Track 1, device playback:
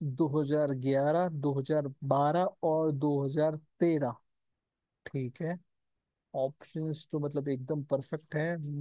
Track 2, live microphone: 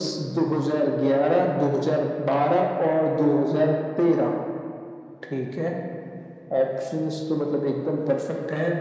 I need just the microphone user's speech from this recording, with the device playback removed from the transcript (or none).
none